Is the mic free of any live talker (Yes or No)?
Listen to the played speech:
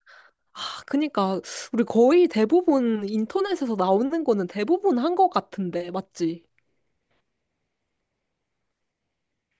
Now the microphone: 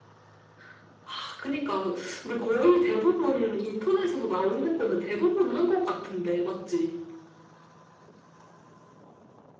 Yes